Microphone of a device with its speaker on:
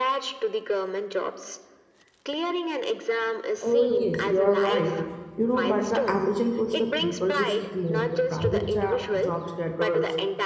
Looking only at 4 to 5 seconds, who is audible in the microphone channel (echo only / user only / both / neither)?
both